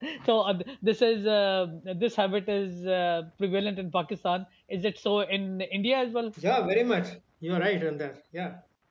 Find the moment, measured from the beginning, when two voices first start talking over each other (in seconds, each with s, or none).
none